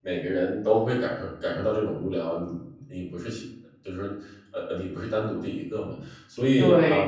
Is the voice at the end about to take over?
Yes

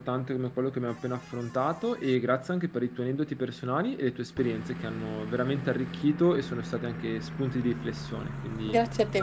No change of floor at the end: No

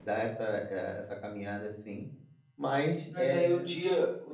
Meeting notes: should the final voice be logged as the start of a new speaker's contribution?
Yes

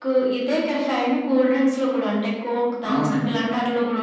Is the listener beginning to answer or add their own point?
No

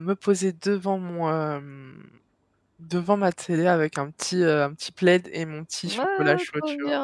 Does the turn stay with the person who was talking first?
No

